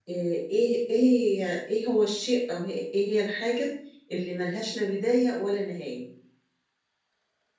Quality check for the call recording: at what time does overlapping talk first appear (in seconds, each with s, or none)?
none